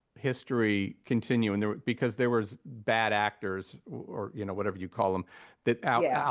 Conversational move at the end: listening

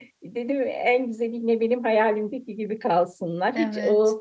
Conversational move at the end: listening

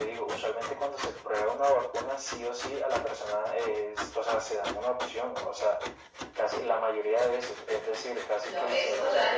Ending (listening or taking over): taking over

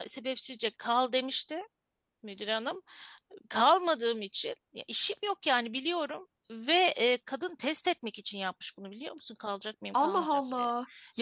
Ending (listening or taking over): taking over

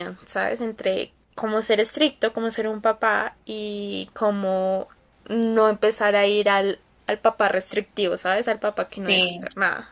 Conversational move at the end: taking over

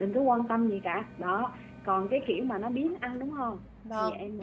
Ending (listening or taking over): taking over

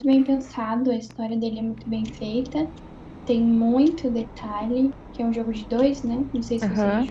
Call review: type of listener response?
taking over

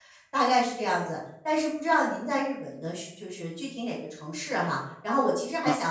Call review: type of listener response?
listening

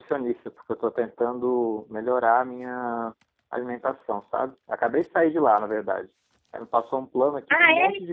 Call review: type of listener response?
listening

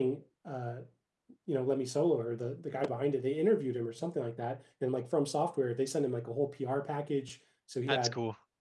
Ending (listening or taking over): listening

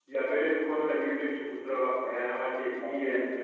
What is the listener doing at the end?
listening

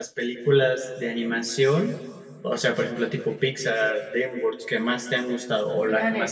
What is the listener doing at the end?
taking over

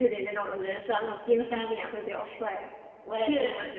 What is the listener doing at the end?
taking over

